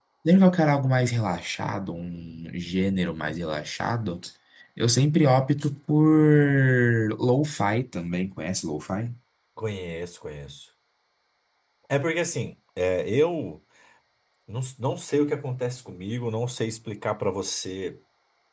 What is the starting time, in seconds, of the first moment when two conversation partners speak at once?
none

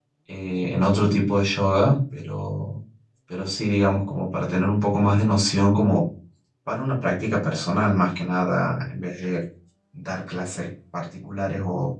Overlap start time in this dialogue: none

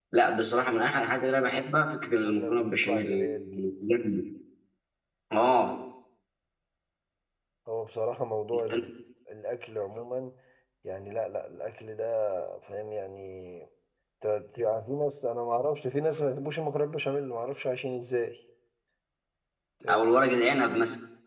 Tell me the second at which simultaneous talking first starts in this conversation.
2.0 s

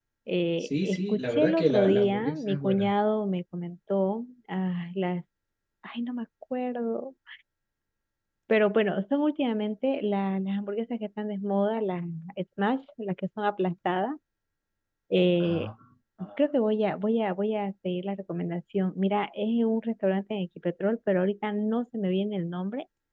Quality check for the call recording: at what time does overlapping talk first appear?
0.6 s

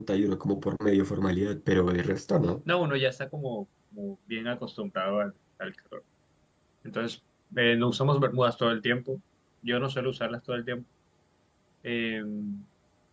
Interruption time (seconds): none

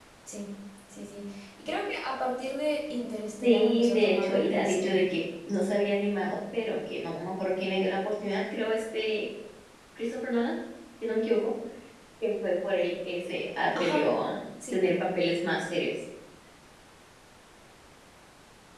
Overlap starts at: 3.4 s

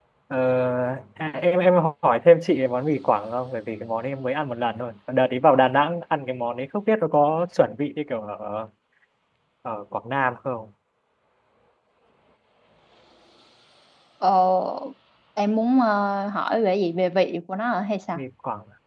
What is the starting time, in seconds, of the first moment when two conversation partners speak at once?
none

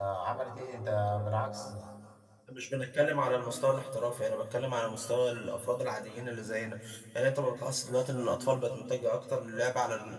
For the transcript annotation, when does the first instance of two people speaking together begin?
none

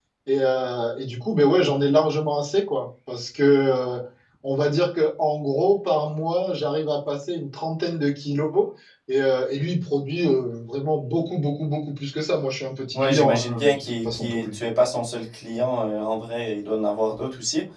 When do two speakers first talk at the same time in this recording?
12.9 s

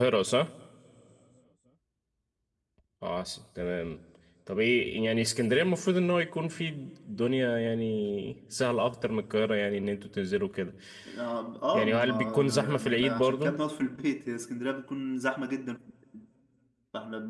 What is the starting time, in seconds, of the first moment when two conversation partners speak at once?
11.7 s

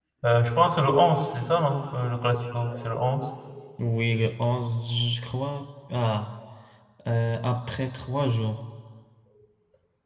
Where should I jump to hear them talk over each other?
none

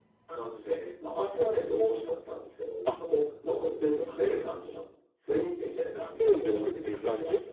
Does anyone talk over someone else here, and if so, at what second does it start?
6.2 s

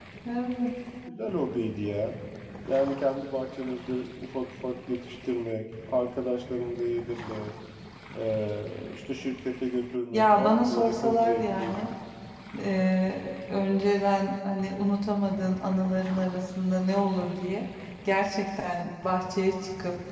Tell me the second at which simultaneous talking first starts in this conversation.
10.1 s

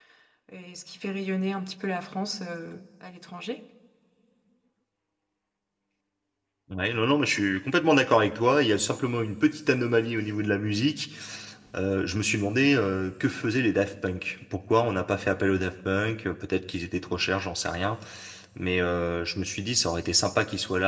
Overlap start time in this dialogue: none

